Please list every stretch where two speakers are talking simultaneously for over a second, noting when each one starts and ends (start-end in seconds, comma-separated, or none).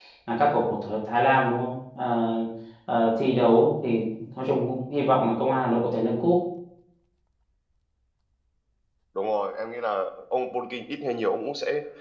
none